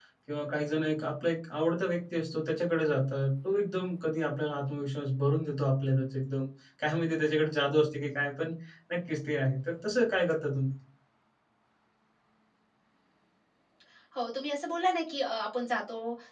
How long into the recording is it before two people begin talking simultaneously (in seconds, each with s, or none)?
none